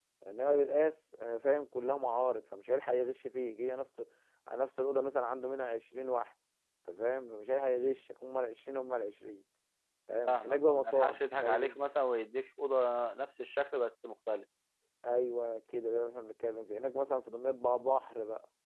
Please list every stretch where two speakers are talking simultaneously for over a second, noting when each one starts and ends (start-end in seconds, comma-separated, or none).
10.2-11.8